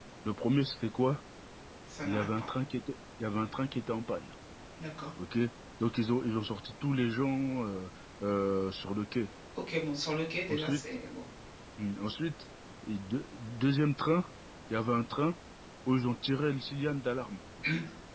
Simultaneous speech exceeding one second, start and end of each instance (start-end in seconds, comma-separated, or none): none